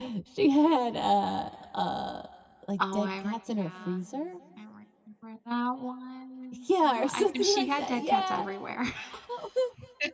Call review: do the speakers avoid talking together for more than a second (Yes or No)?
No